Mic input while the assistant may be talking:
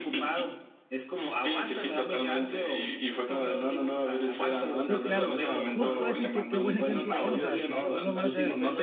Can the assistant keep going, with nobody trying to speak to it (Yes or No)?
No